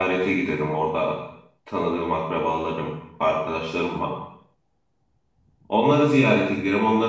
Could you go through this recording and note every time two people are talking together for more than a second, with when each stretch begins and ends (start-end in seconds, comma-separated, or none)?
none